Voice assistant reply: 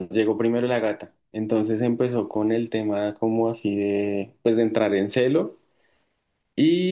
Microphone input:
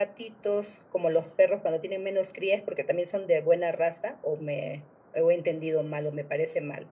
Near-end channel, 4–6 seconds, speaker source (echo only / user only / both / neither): user only